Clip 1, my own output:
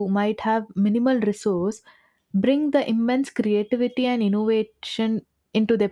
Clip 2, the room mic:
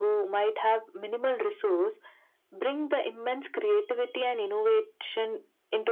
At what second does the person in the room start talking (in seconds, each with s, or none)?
none